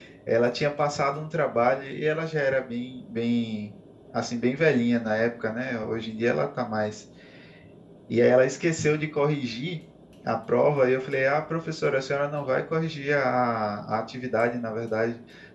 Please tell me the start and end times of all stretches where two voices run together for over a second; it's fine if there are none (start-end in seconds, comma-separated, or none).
none